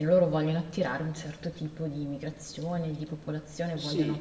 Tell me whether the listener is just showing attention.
No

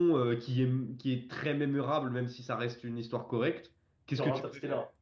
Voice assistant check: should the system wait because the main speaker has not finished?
Yes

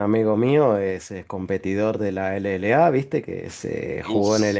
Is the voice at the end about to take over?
No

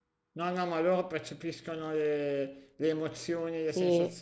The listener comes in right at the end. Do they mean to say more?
No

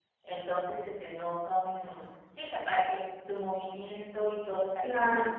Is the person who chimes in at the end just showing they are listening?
No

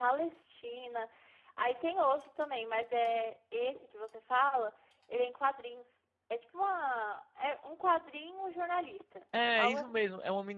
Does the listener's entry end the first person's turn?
Yes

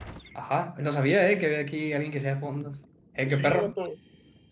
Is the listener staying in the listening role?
No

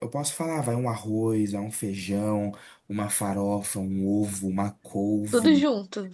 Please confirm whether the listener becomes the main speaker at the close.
No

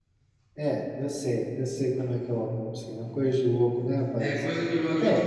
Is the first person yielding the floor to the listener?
Yes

